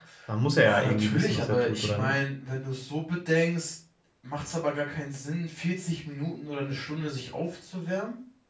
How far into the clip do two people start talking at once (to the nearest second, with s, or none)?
1 s